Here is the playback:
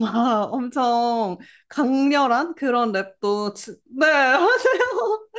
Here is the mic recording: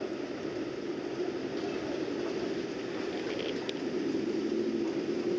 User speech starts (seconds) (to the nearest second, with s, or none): none